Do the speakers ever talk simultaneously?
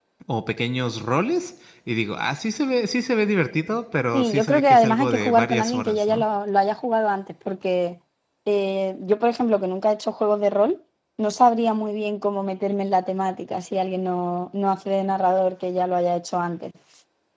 Yes, from 4.1 s

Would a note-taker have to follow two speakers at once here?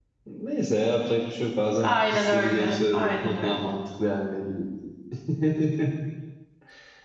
Yes, from 1.8 s

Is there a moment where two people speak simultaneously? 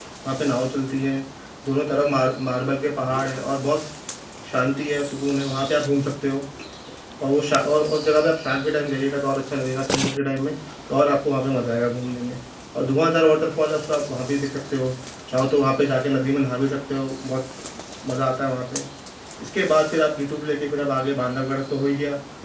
No

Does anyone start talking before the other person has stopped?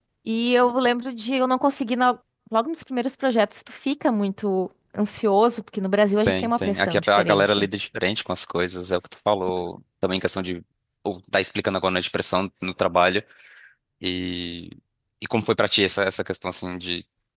Yes, from 6.3 s

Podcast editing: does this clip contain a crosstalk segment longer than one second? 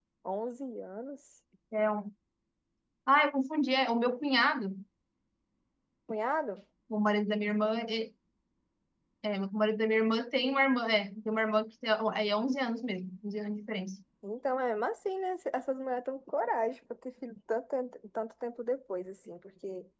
No

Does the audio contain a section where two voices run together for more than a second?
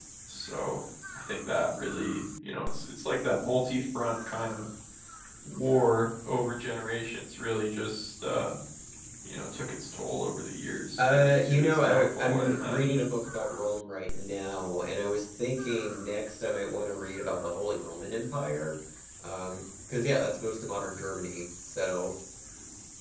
Yes, from 11.0 s

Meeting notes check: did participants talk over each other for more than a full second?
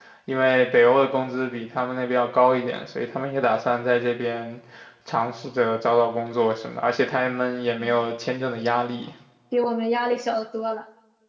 No

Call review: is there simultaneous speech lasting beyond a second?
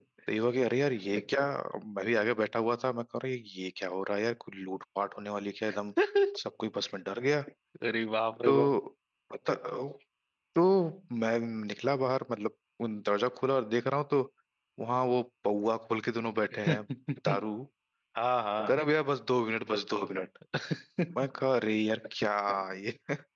No

